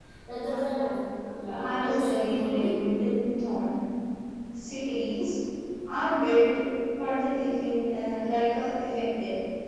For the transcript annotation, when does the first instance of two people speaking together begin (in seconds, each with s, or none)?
1.4 s